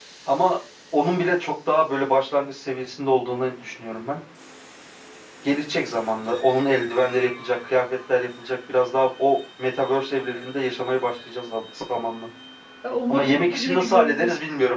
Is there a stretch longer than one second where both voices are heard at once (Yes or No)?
Yes